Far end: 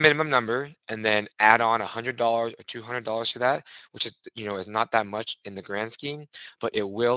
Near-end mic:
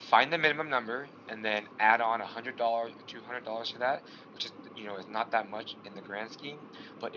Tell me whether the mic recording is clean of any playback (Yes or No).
No